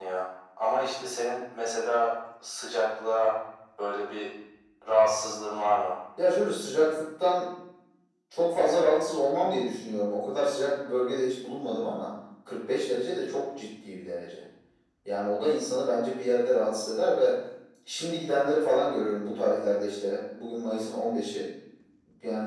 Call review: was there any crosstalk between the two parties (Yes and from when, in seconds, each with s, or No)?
No